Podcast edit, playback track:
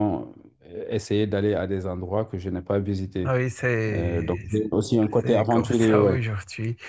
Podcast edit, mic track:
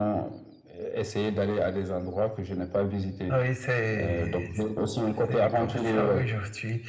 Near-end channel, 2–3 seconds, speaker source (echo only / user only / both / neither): echo only